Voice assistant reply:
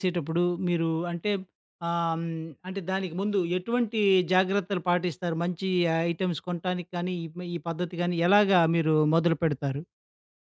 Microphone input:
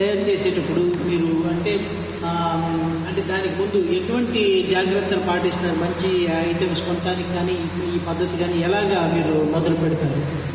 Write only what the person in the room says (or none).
none